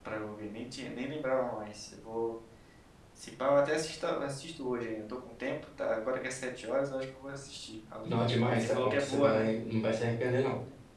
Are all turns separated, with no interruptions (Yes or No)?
No